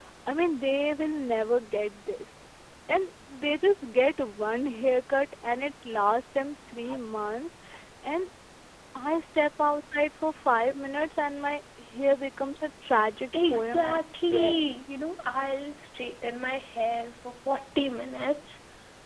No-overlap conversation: No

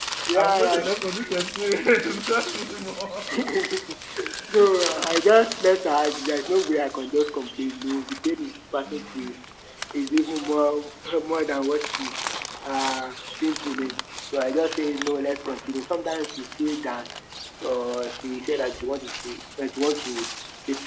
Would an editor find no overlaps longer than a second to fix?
Yes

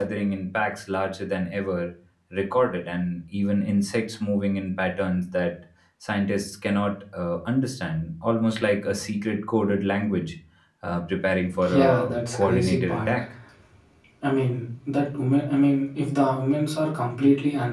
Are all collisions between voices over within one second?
No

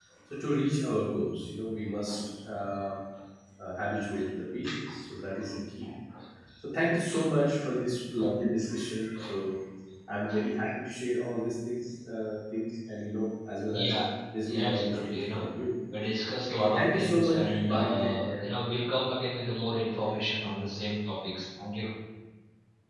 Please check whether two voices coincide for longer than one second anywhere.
Yes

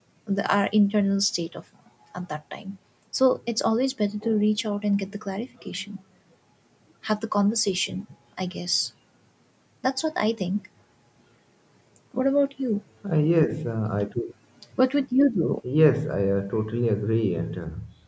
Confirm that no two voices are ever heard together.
Yes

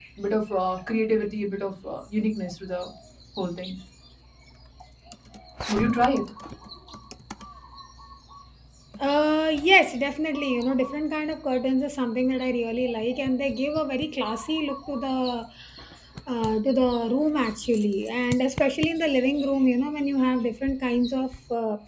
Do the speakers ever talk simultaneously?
No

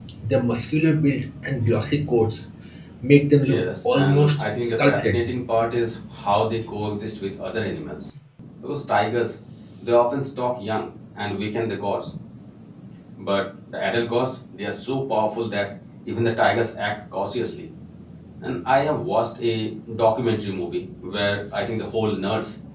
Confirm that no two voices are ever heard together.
No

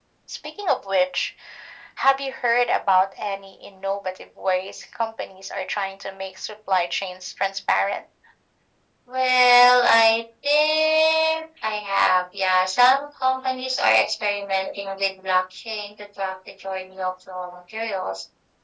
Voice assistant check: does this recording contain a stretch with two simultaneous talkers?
No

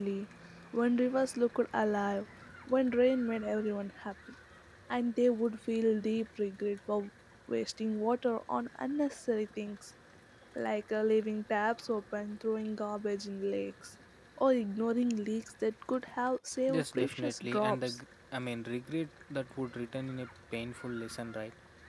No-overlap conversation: No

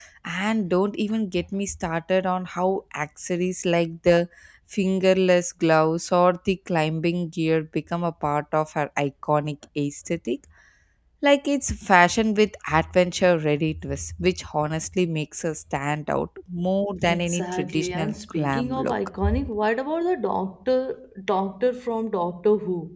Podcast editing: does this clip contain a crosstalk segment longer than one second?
Yes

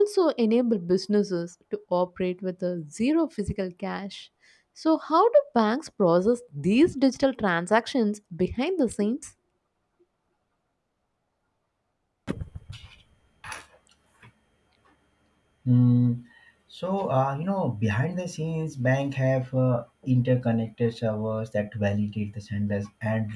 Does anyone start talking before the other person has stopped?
No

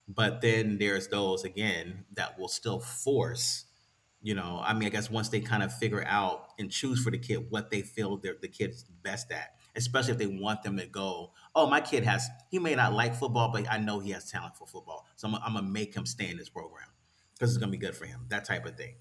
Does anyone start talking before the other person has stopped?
No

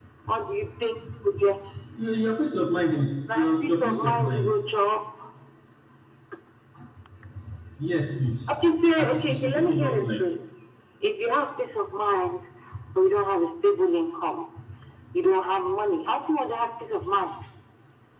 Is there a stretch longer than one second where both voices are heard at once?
Yes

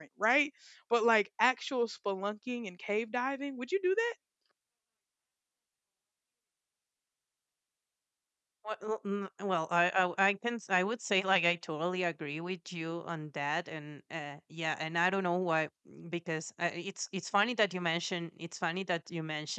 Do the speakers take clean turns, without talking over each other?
Yes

